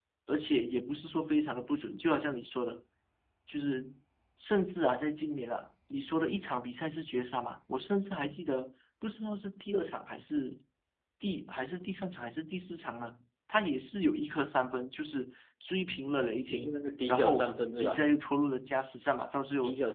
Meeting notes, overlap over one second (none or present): present